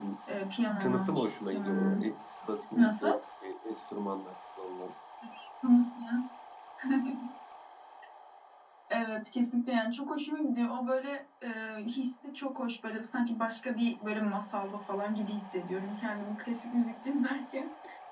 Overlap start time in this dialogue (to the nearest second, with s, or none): 1 s